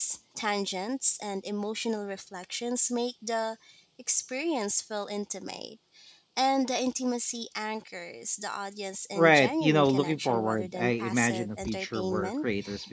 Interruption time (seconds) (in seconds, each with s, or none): 9.2 s